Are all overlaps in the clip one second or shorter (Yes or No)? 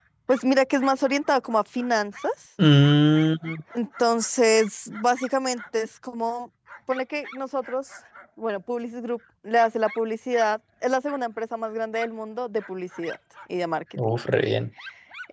Yes